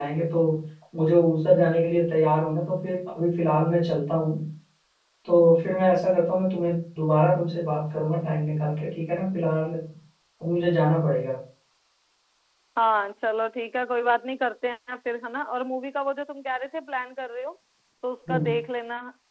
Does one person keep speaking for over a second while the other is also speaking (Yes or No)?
No